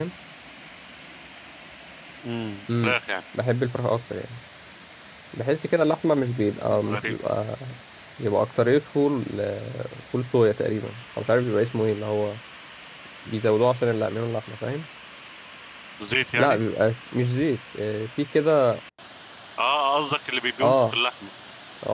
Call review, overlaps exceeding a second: none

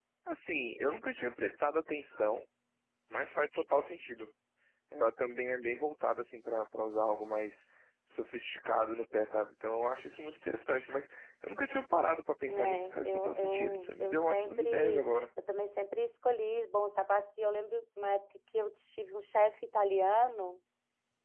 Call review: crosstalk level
present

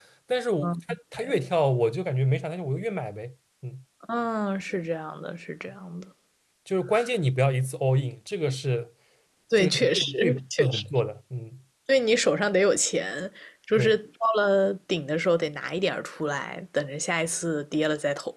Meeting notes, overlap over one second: present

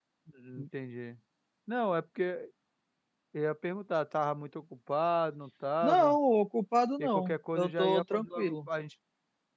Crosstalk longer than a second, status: present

